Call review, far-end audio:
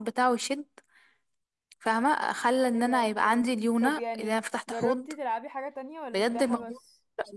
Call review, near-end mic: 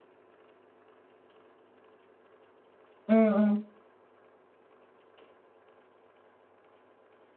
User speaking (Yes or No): Yes